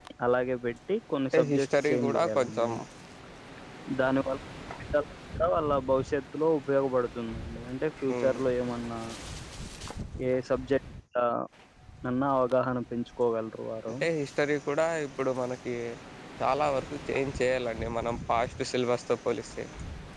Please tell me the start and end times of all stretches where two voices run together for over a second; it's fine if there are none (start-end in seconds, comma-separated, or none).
1.3-2.7